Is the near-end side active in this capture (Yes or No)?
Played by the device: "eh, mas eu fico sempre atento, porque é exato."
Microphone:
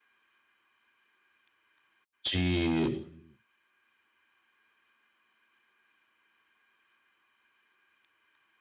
Yes